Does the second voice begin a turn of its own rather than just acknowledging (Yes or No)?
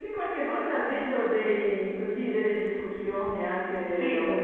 No